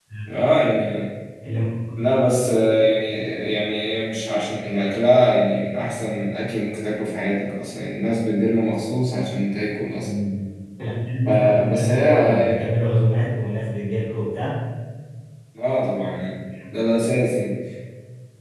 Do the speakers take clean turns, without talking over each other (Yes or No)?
No